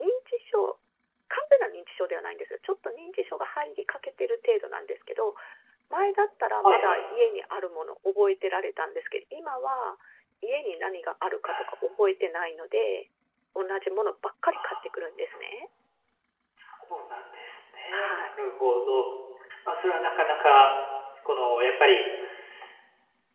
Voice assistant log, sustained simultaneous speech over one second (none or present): none